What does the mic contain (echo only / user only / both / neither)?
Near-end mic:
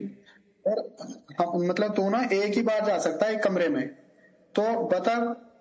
echo only